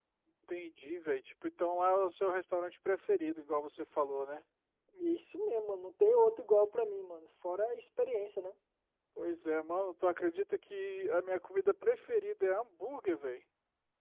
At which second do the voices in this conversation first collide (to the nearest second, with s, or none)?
none